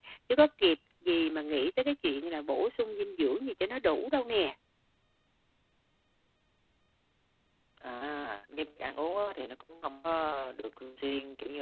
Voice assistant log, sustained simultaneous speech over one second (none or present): none